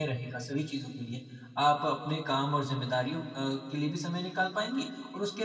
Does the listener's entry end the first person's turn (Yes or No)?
No